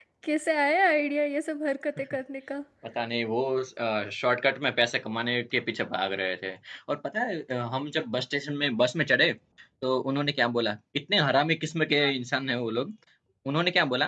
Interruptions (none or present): none